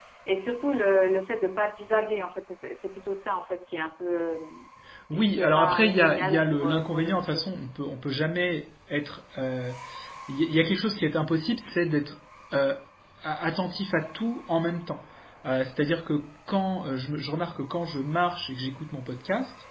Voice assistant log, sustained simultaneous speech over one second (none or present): present